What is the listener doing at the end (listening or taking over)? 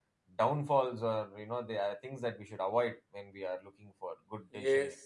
taking over